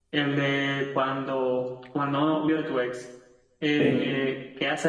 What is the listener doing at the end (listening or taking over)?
listening